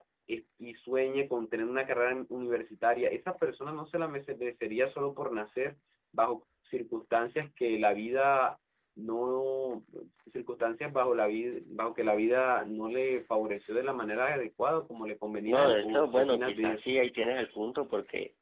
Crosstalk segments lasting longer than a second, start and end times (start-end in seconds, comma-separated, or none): 15.5-16.9